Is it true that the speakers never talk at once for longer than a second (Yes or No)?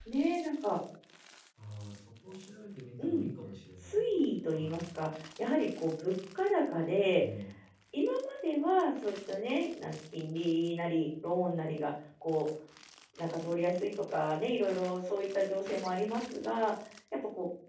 Yes